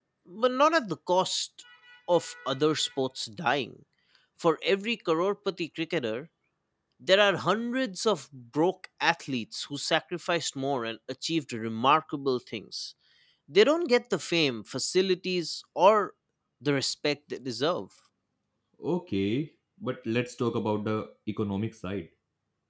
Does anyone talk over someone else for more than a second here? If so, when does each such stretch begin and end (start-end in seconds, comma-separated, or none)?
none